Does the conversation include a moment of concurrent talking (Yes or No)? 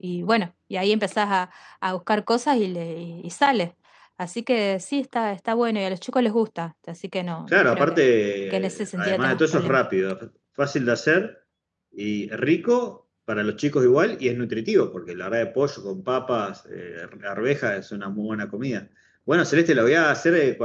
Yes